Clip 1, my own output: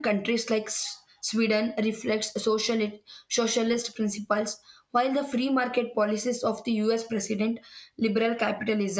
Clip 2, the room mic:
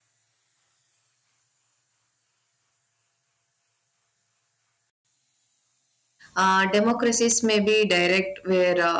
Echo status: none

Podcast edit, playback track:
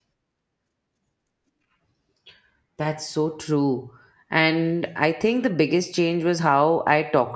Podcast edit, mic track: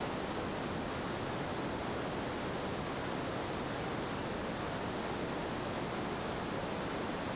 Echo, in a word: none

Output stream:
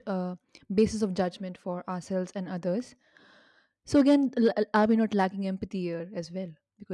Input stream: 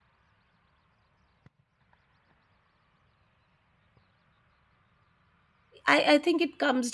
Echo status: none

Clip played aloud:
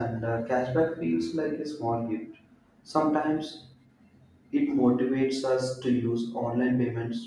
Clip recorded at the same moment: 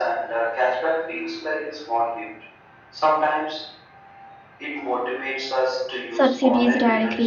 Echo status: present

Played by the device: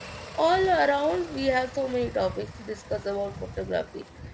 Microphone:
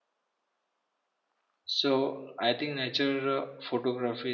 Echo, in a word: none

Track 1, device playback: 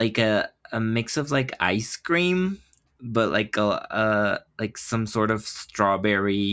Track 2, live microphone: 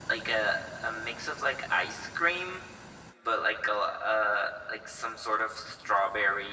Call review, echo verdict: present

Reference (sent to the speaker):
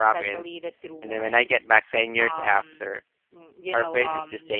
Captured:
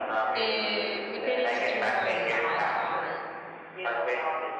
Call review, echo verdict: present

